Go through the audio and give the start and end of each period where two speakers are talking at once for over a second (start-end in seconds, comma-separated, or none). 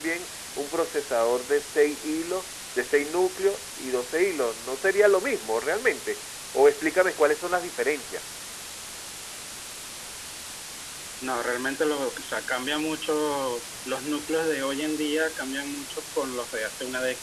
none